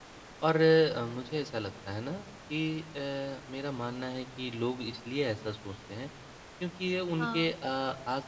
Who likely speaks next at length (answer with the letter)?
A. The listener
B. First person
B